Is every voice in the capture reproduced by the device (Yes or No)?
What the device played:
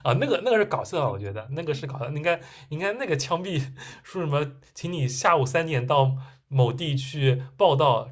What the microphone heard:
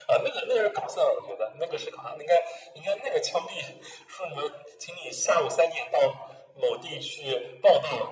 Yes